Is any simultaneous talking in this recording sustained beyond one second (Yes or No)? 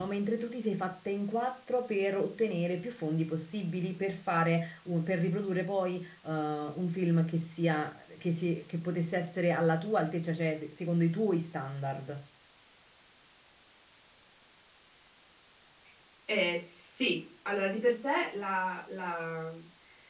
No